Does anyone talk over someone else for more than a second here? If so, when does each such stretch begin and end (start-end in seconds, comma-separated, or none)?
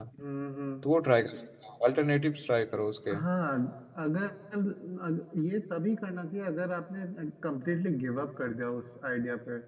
none